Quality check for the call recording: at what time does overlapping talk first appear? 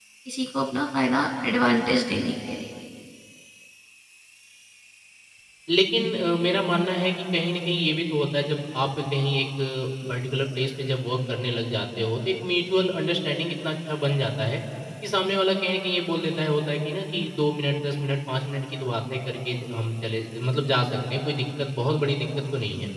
none

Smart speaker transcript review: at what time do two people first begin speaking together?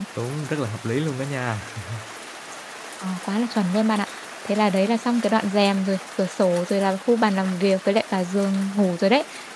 none

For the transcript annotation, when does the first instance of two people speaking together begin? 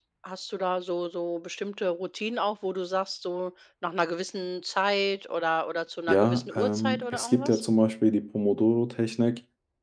6.1 s

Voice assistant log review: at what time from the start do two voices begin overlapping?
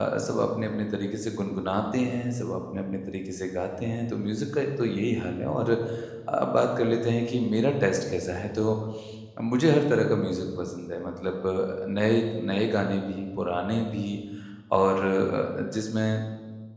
none

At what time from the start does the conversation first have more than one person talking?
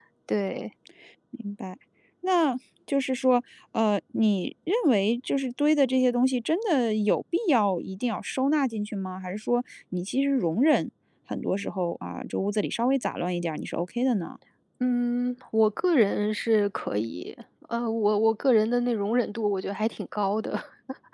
none

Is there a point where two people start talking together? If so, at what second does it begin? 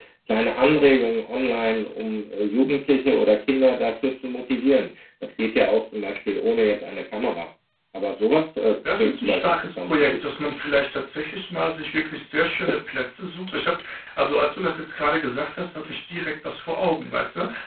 8.8 s

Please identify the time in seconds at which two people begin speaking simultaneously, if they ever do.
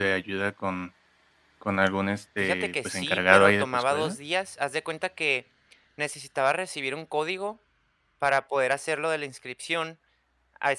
2.4 s

